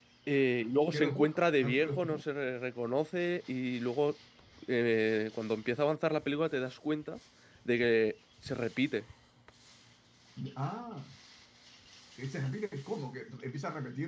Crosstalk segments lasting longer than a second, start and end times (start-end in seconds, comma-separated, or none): 0.9-2.2